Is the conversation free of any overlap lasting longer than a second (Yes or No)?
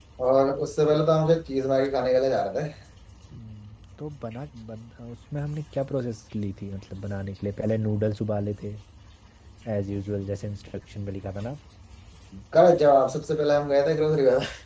Yes